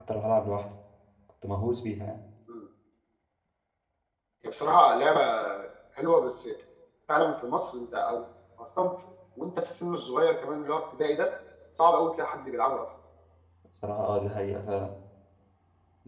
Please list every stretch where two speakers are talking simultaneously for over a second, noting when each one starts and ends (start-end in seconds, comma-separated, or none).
none